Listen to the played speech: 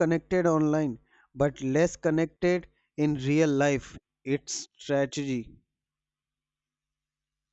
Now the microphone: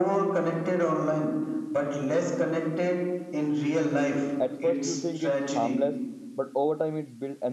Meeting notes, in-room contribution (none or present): present